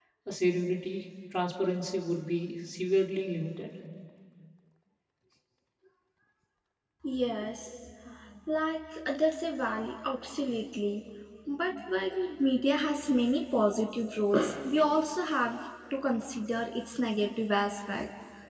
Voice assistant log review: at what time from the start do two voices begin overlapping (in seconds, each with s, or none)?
none